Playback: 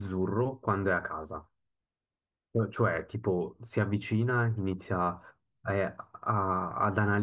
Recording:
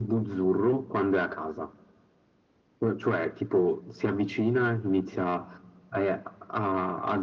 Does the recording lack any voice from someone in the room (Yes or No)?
Yes